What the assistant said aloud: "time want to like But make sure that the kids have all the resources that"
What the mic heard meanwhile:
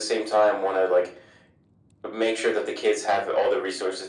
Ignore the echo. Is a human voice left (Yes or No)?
No